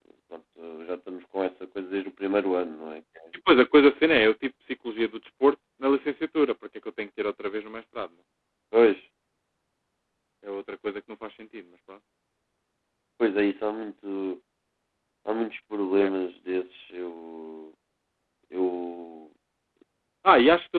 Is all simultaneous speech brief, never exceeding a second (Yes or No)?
Yes